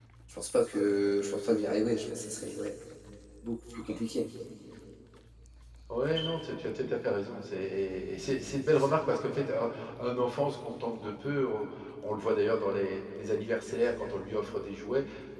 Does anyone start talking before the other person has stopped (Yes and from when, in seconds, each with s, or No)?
No